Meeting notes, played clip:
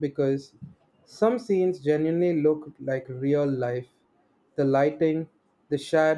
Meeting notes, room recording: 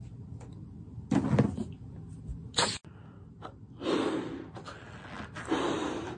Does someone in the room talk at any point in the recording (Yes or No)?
No